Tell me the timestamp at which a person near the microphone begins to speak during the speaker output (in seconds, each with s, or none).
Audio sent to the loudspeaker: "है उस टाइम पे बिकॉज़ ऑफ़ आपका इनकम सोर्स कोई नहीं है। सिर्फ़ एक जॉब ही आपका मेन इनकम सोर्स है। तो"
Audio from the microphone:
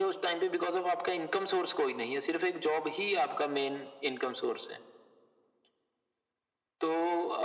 none